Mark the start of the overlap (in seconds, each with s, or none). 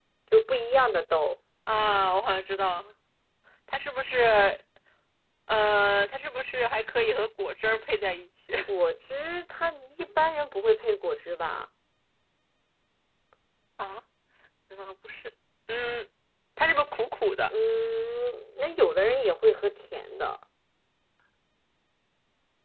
none